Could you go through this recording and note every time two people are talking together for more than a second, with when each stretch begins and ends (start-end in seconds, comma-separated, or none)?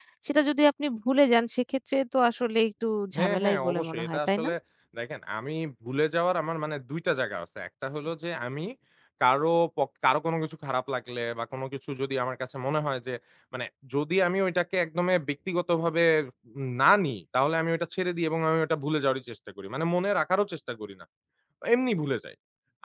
3.2-4.5